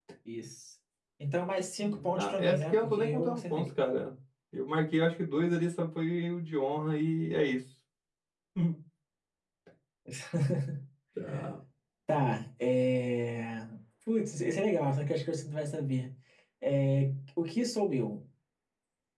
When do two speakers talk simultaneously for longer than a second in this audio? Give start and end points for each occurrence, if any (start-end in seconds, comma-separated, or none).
1.8-3.6